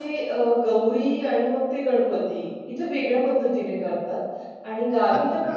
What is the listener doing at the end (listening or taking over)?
taking over